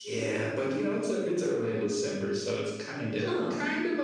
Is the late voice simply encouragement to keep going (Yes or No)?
No